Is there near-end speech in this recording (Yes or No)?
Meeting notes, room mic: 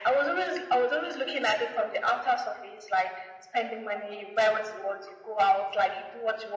No